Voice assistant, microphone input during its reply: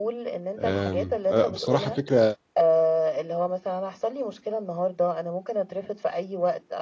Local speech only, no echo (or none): آمم، آآ، بصراحة فكرة